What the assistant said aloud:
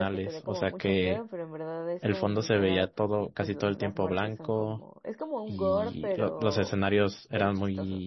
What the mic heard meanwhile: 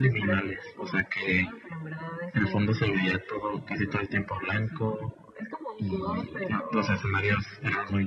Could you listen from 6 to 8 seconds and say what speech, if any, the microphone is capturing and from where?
echo only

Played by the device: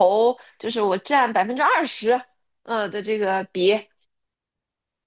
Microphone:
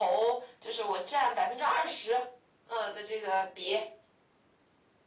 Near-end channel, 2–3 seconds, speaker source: echo only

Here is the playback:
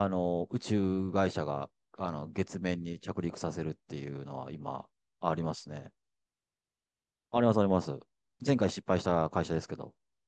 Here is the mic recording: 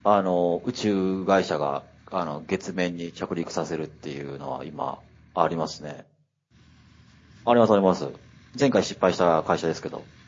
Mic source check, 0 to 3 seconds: echo only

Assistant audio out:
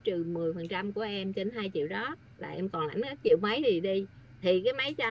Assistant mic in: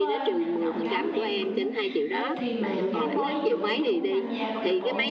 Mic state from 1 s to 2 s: both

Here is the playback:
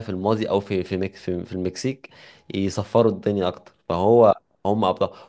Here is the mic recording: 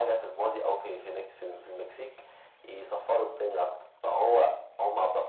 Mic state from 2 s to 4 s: echo only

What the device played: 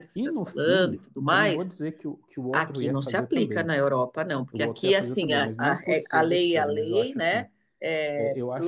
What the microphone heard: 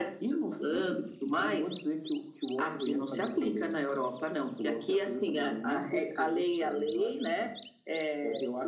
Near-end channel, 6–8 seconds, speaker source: echo only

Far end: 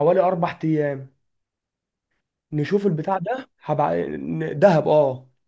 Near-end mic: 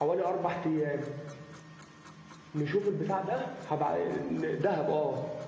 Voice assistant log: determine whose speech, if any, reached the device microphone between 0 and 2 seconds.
echo only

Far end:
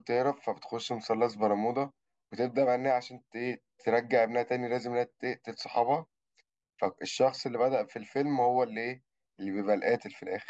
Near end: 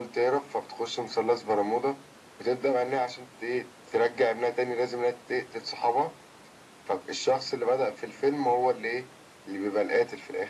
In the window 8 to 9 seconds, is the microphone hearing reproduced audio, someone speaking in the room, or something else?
echo only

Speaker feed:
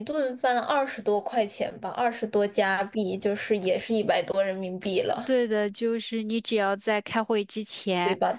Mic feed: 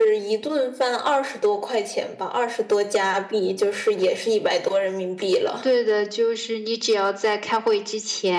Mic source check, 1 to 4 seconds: echo only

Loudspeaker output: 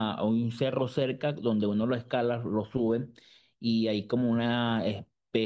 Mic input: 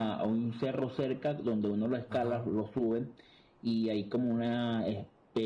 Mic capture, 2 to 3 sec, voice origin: both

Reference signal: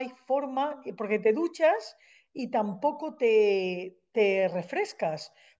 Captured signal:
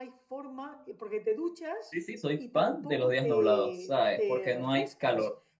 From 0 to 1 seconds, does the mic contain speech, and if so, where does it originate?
echo only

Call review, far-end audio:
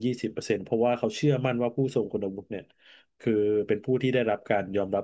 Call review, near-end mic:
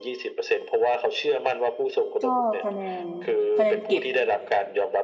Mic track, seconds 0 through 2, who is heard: echo only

